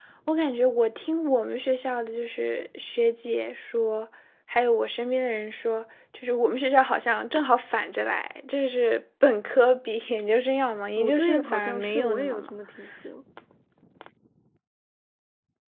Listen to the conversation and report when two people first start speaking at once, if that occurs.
11.0 s

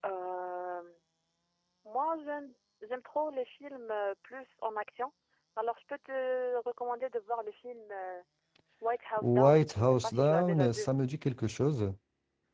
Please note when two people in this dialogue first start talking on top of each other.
9.2 s

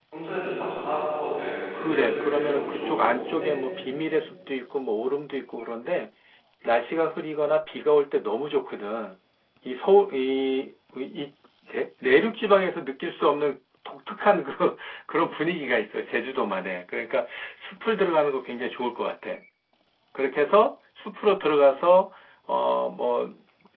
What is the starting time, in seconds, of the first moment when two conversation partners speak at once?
1.8 s

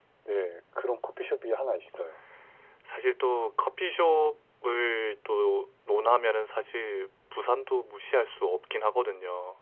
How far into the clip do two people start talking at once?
none

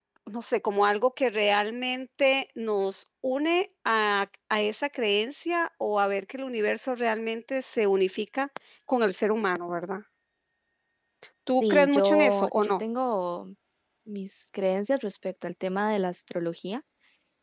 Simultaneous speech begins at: 11.6 s

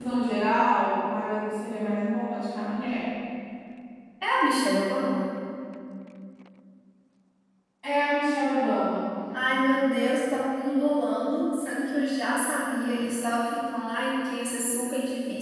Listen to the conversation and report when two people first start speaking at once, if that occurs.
none

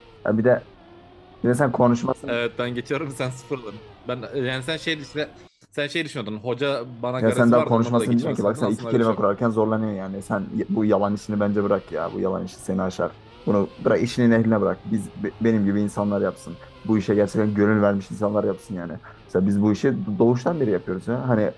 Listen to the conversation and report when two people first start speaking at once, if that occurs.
7.2 s

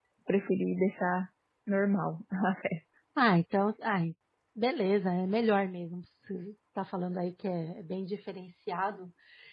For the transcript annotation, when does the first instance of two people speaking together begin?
none

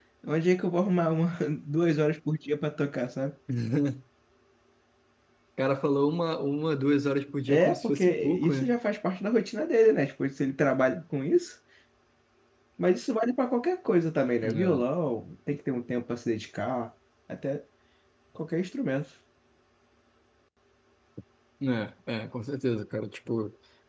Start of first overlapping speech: 7.5 s

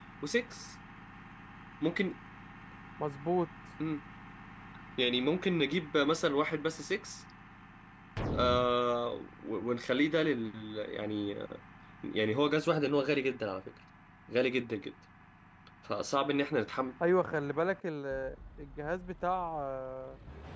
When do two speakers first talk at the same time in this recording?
none

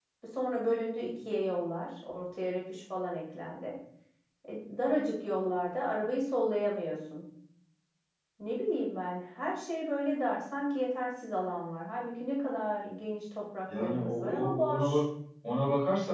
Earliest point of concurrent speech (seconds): 13.7 s

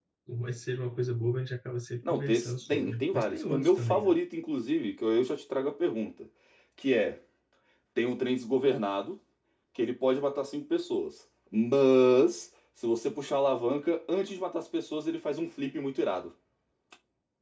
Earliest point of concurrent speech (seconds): 2.0 s

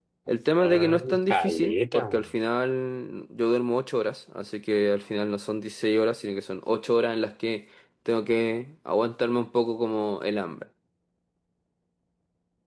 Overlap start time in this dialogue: 0.6 s

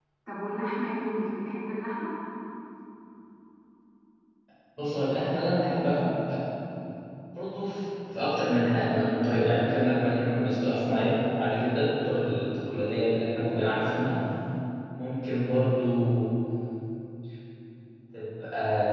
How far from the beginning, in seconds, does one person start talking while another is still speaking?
none

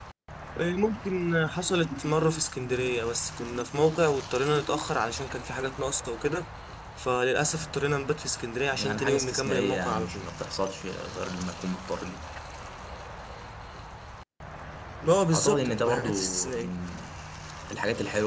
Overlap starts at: 8.7 s

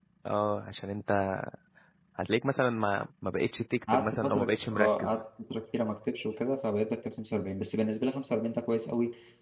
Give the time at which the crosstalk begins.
3.9 s

